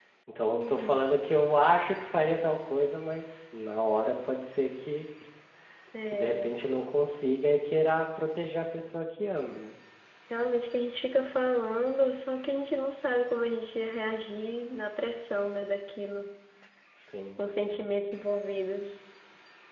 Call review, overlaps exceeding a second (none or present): none